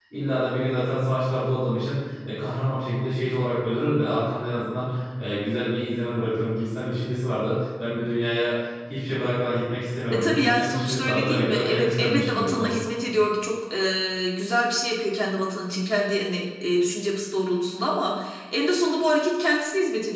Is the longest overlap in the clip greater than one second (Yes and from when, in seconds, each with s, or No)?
Yes, from 10.1 s